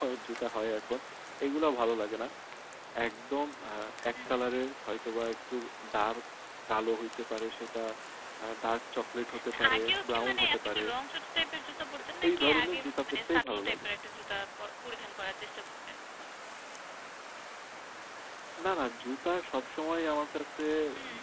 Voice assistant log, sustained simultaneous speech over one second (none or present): present